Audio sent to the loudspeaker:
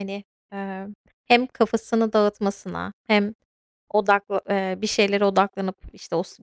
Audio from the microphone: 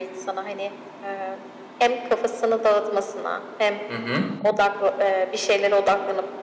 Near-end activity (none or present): present